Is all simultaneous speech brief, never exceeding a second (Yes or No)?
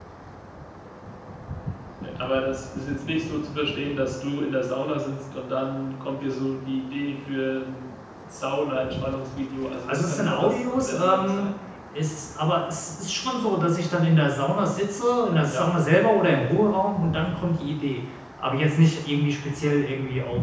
No